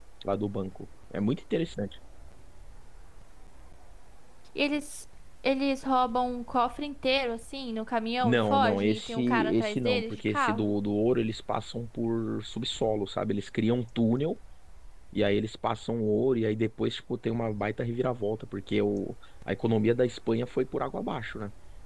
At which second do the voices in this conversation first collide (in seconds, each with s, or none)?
8.2 s